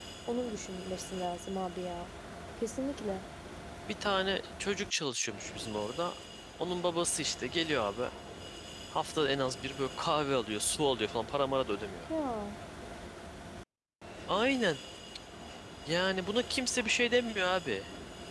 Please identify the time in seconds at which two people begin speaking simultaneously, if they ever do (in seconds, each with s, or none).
none